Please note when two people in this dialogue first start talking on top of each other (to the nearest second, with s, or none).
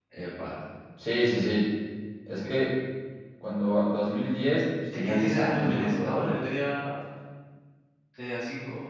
5 s